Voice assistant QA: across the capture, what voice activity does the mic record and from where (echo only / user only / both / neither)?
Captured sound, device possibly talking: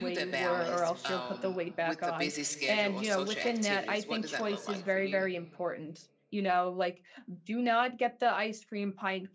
both